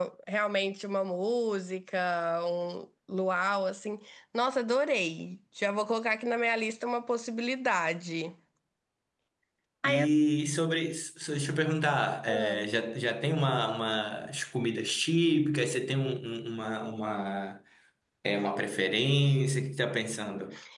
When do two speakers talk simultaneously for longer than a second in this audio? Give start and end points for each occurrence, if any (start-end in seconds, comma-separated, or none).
none